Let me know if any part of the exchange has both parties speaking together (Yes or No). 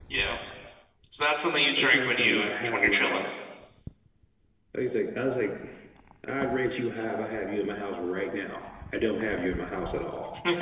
Yes